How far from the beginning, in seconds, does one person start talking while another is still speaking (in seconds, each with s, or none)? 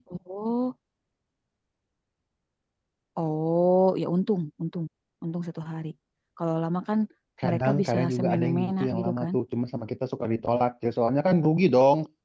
7.5 s